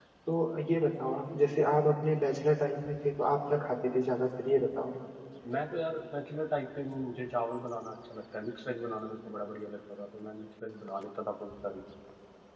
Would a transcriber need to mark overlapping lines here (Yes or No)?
No